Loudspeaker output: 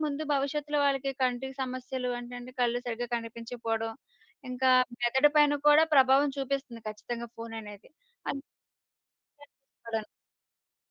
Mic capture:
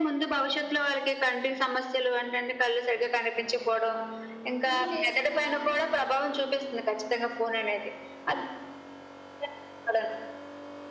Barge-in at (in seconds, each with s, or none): 4.7 s